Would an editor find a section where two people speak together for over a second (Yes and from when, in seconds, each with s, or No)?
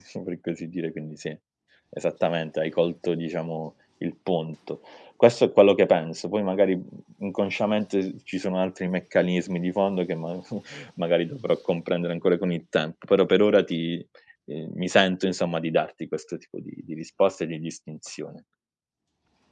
No